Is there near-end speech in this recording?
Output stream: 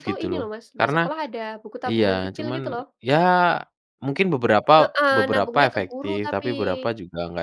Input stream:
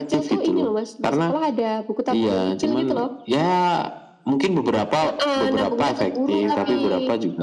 Yes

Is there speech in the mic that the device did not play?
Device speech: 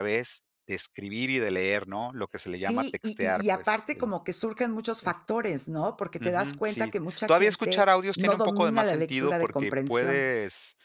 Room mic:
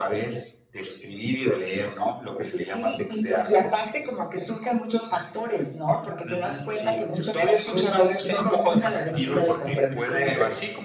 Yes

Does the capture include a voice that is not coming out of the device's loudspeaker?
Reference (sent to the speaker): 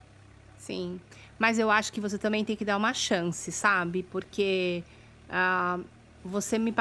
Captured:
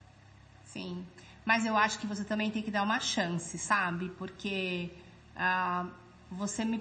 No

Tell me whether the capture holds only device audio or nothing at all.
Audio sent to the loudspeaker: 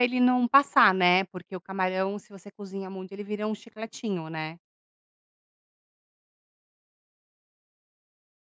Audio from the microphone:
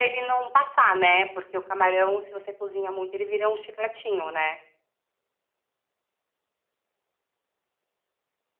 Yes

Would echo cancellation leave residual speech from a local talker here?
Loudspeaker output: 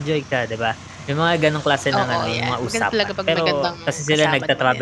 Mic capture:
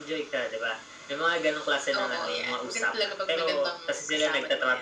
No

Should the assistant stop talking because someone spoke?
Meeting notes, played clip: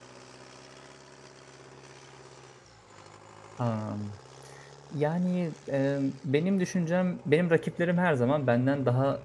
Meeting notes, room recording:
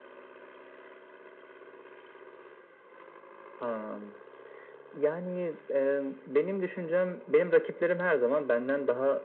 No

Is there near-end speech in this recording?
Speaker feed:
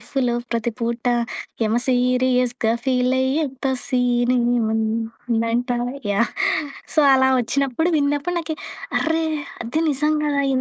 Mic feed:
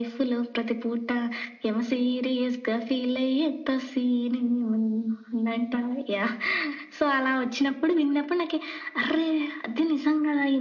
No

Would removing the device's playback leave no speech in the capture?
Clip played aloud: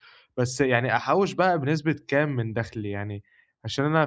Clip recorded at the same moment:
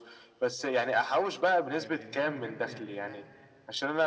No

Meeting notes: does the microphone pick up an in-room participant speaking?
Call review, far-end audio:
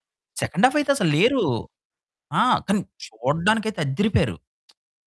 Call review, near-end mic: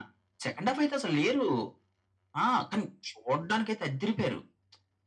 No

